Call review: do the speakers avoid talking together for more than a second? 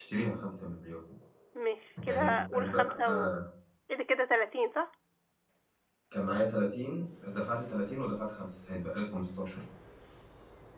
No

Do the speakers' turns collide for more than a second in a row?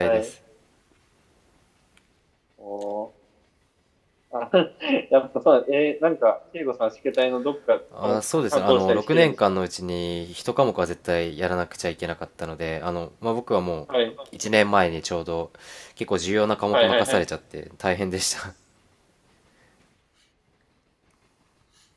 Yes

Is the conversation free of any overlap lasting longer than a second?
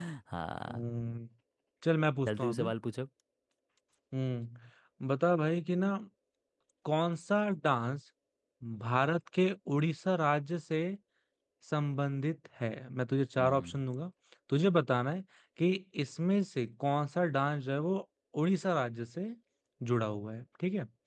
Yes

